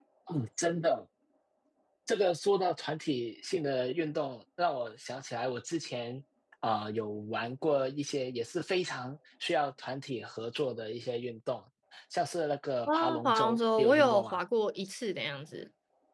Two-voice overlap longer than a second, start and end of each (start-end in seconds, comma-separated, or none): 12.9-14.4